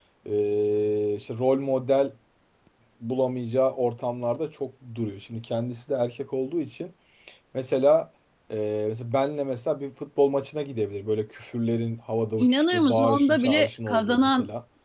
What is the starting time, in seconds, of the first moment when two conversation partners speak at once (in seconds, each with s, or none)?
12.4 s